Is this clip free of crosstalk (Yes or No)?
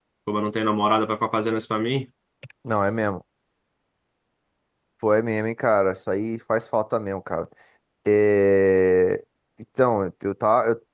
Yes